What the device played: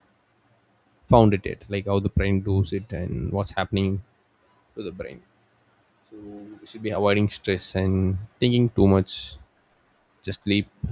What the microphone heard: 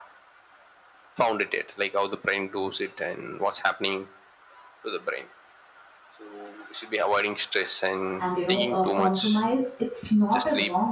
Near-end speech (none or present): present